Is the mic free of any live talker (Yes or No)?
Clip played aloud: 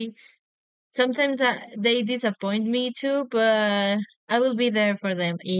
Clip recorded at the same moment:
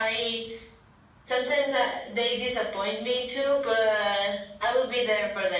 Yes